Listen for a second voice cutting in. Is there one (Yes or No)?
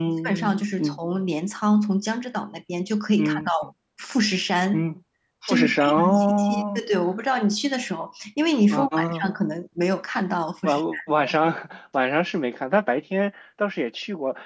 Yes